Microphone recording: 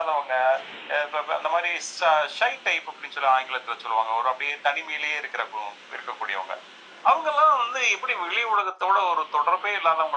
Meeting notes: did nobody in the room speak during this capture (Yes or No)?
Yes